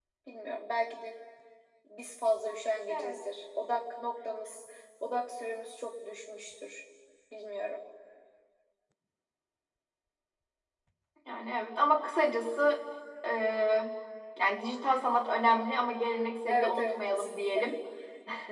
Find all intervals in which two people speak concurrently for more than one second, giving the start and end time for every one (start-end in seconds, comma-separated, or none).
16.5-17.7